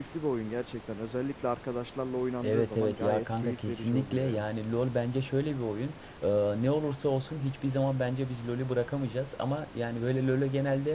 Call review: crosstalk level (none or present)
present